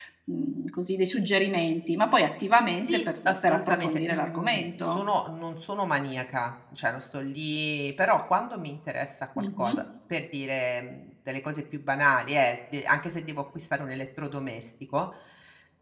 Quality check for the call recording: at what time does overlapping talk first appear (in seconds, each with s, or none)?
2.8 s